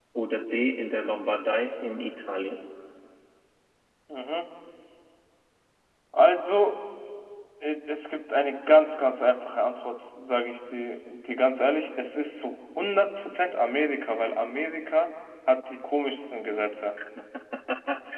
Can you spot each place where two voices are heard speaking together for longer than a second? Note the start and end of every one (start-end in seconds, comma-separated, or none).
none